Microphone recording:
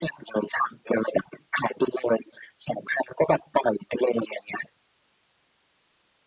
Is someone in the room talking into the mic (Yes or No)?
No